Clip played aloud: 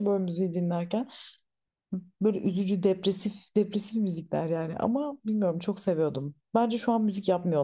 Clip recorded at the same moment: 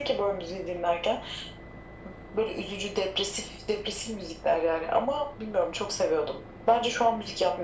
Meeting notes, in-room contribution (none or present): none